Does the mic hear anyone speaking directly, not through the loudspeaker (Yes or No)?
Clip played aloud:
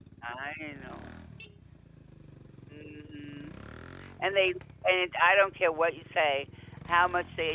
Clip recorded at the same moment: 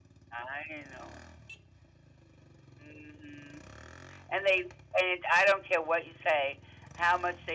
No